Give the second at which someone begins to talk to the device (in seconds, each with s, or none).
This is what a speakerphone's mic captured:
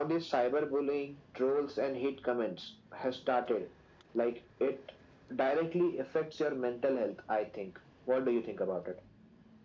none